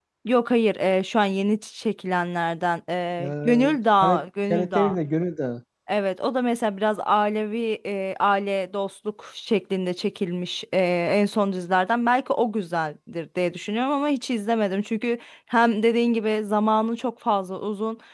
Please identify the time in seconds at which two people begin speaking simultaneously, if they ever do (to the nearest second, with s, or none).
3 s